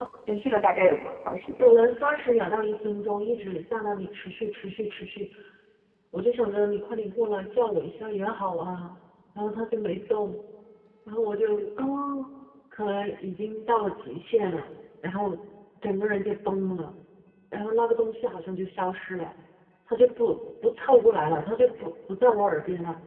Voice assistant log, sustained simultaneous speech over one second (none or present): none